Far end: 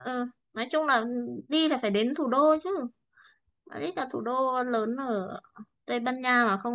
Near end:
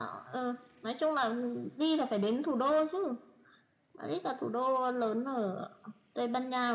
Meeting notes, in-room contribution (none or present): none